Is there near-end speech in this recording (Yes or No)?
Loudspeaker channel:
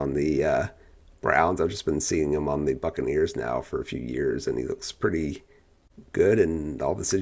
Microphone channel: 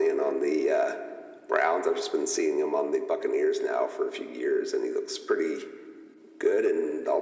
No